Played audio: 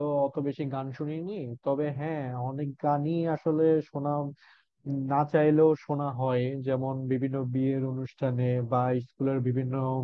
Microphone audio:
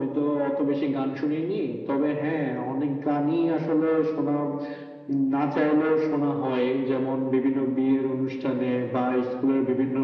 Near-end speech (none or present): none